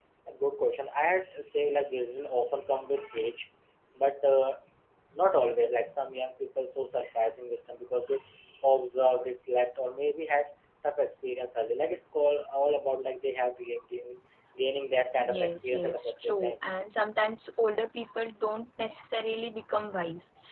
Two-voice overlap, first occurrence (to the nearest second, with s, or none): 15 s